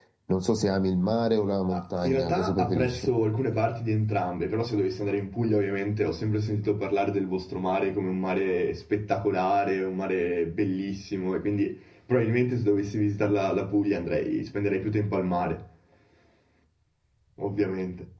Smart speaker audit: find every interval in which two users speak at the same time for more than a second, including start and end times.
1.7-3.1

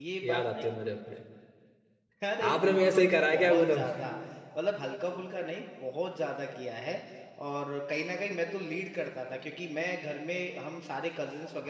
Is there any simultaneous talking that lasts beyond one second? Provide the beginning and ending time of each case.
2.5-3.8

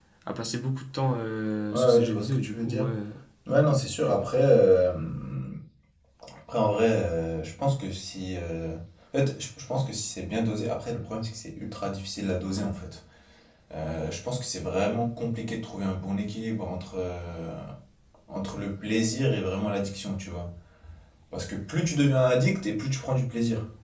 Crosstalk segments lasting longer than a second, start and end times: 1.7-2.9

